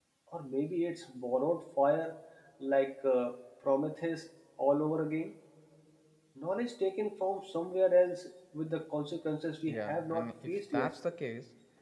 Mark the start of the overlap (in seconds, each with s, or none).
9.7 s